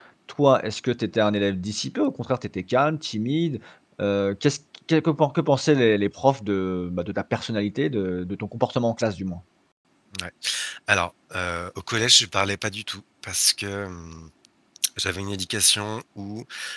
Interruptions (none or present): none